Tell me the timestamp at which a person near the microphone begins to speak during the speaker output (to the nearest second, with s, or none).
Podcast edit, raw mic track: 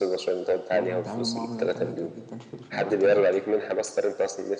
1 s